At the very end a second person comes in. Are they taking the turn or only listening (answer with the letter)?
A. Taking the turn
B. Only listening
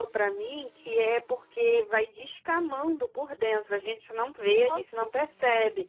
B